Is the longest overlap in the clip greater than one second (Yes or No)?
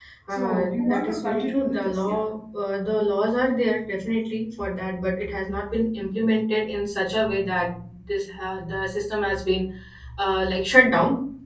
Yes